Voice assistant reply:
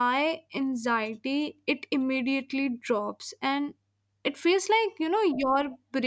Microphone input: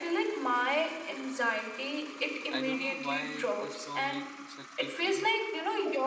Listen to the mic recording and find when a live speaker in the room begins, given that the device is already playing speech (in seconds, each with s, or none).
2.5 s